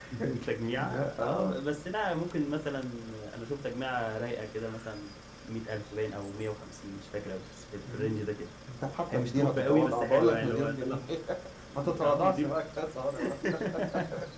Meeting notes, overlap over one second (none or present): present